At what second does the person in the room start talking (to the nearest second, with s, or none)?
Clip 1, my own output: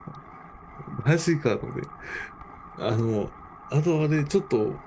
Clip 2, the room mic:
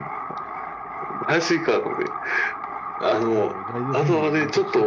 3 s